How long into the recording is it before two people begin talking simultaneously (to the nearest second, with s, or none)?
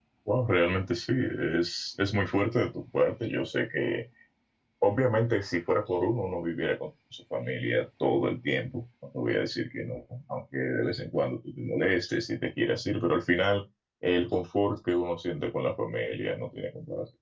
none